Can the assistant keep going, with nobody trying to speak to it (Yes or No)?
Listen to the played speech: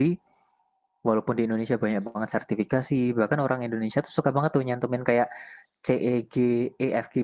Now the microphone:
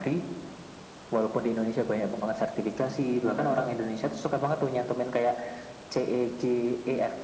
Yes